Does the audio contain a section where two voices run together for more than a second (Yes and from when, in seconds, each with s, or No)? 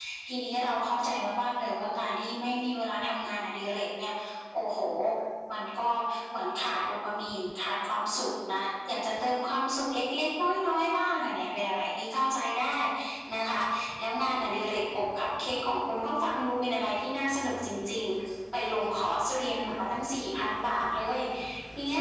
No